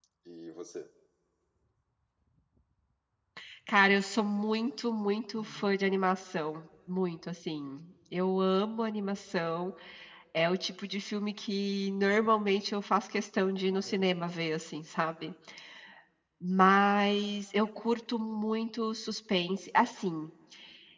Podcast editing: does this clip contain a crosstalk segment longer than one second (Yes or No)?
No